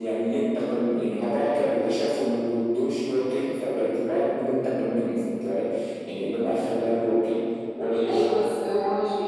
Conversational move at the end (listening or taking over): taking over